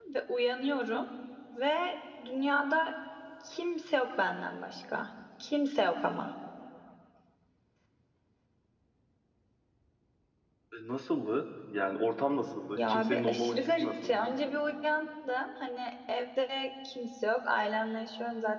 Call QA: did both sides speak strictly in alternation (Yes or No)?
No